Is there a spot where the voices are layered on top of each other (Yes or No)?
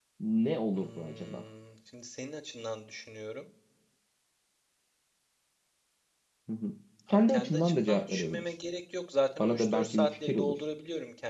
Yes